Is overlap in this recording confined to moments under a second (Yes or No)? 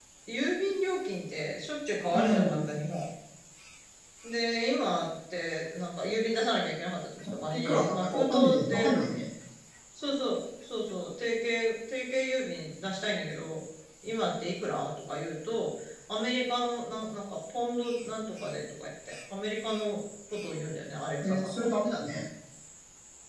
No